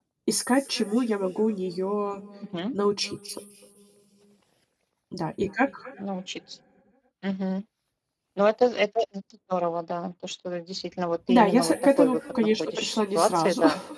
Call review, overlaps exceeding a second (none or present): present